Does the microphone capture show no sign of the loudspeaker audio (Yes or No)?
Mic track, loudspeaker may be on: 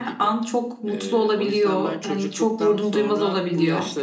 No